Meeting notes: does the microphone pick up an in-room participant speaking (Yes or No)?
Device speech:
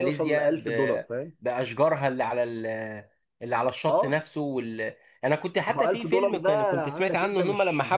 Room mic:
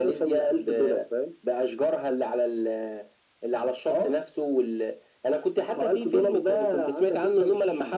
No